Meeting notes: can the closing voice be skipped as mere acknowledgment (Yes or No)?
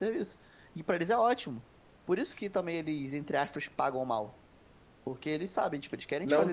No